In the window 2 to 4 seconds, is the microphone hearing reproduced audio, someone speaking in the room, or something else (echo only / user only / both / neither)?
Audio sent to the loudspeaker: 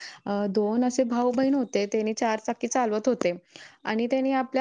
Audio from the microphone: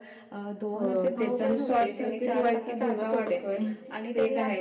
both